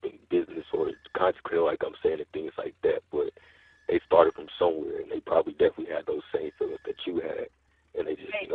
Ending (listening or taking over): listening